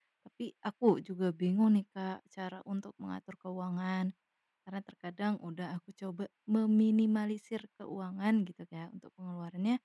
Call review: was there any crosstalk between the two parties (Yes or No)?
No